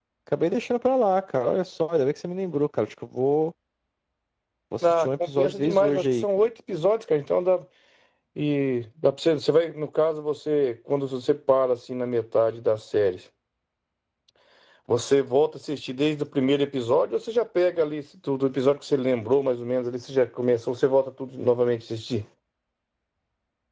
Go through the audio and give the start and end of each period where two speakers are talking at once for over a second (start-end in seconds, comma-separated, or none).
4.8-6.2